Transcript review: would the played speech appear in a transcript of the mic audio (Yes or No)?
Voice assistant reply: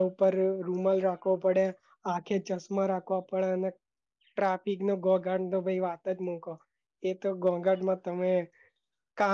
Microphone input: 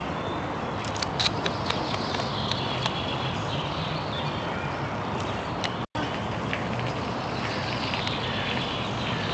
No